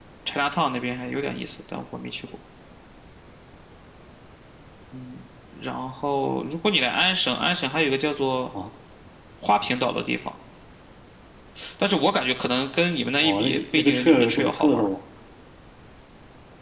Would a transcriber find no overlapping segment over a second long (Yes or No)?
No